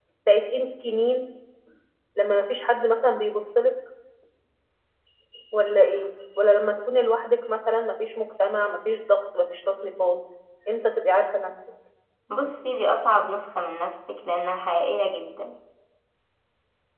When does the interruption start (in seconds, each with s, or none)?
none